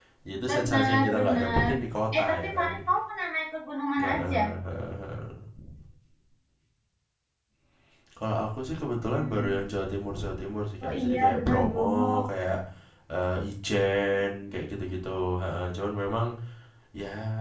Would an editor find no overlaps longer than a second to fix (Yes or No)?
No